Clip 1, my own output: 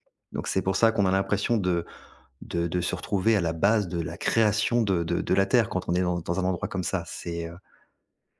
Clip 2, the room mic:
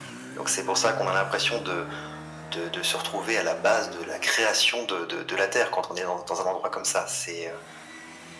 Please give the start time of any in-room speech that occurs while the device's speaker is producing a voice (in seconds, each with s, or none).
none